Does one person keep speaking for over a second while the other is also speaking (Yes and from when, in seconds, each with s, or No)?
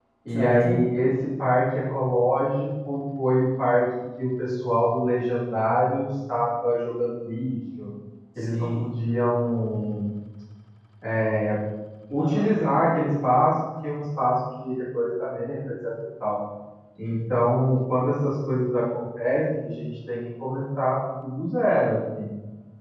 No